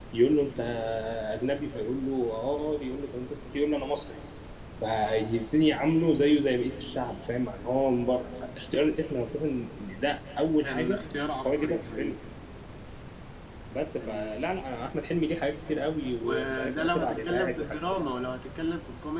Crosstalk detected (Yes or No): Yes